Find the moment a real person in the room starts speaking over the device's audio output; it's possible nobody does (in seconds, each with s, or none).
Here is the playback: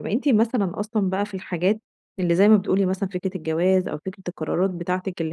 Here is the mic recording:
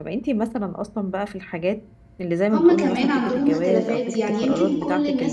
2.5 s